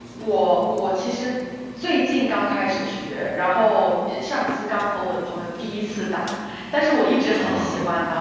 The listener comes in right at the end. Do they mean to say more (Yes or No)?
No